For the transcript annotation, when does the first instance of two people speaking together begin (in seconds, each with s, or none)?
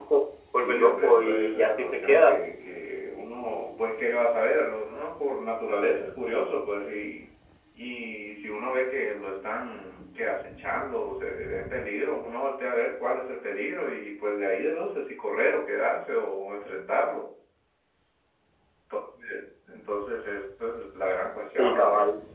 0.6 s